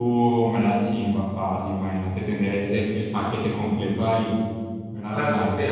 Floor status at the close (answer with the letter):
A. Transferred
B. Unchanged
A